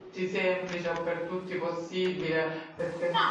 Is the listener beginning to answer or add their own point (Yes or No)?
Yes